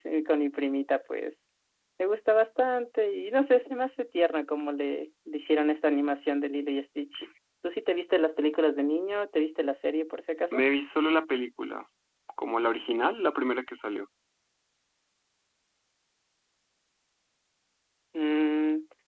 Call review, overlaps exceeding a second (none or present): none